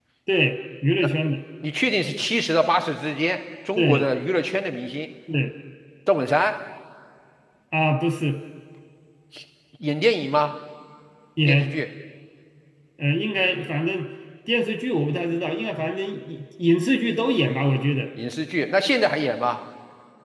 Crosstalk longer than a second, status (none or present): none